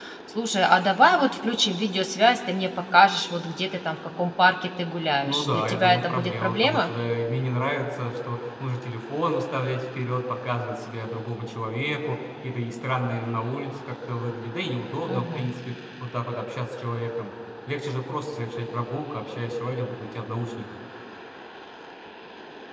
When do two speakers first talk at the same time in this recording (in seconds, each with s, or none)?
5.2 s